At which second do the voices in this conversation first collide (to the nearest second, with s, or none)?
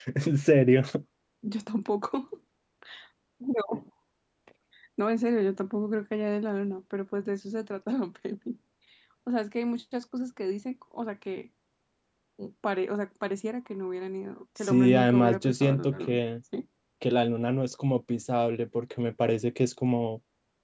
15 s